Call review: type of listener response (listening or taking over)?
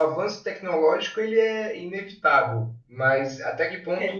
listening